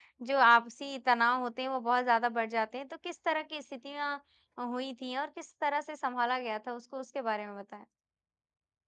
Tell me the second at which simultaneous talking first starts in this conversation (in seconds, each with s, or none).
none